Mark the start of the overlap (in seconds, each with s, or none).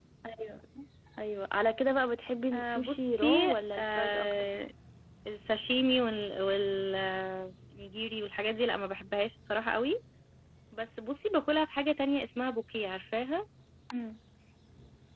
2.5 s